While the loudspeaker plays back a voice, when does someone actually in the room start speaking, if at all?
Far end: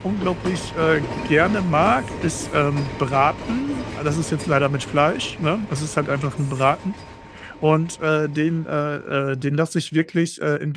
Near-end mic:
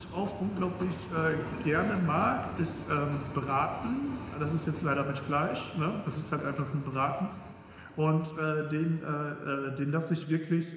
none

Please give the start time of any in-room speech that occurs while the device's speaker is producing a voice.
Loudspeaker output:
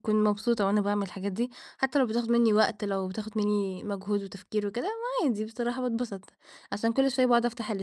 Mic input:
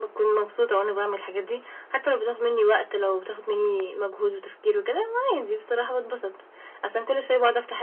none

